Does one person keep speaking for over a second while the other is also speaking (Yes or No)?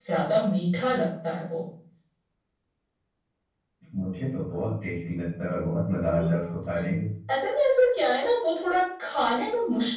No